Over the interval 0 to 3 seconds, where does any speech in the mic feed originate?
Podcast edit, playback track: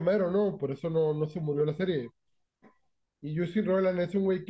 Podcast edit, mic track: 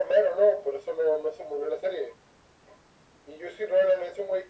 echo only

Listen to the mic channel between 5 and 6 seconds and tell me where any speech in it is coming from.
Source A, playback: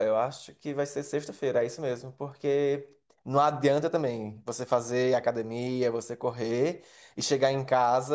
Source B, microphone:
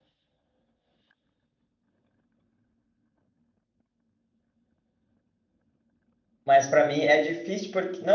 neither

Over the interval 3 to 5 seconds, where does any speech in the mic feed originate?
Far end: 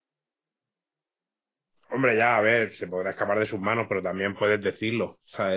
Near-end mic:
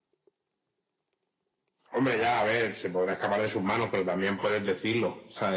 echo only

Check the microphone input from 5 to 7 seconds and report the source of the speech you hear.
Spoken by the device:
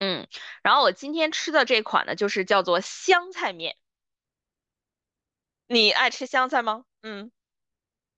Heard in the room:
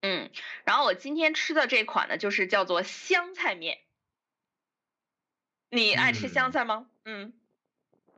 both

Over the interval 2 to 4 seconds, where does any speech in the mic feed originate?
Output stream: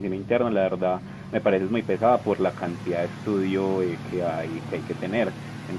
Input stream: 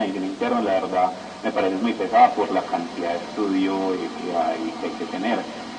echo only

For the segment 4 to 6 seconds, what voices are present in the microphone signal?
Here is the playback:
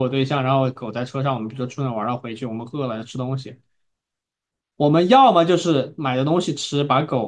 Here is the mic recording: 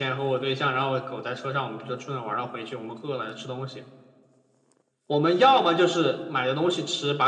echo only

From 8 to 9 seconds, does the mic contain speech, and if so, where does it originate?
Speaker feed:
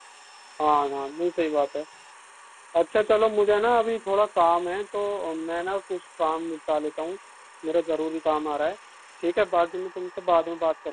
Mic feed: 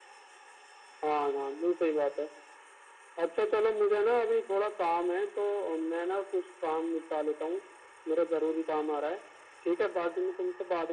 echo only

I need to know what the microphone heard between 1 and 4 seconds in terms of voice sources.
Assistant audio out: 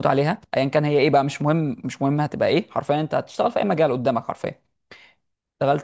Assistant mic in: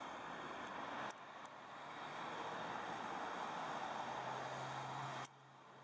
neither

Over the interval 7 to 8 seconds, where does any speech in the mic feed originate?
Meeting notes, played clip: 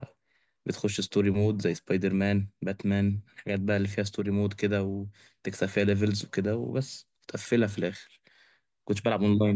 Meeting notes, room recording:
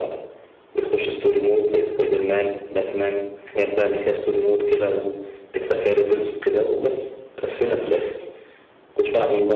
echo only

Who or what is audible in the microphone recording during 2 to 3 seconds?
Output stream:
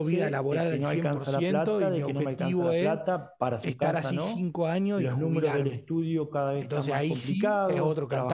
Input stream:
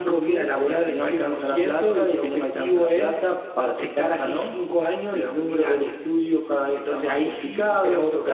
echo only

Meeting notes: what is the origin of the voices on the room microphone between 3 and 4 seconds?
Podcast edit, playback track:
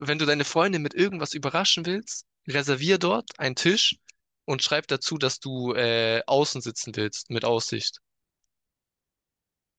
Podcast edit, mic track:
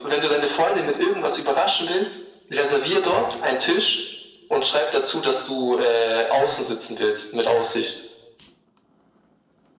echo only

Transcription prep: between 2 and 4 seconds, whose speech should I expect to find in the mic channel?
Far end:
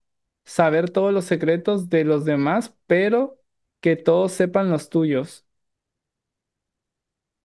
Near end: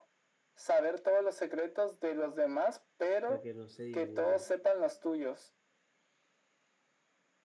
both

